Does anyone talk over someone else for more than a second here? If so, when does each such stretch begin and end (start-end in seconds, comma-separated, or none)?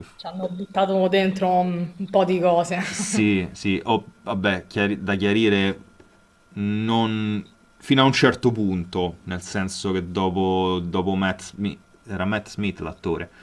none